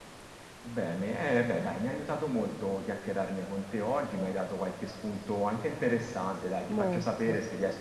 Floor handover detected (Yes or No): No